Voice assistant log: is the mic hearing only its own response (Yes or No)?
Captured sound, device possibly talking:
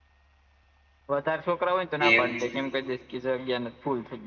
No